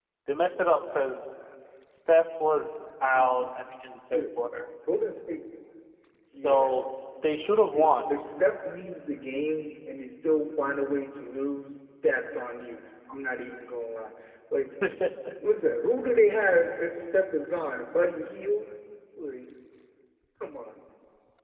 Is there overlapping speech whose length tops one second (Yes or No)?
No